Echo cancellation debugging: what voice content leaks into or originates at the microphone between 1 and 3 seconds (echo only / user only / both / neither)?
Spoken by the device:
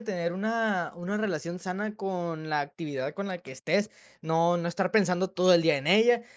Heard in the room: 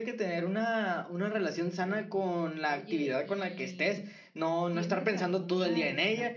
both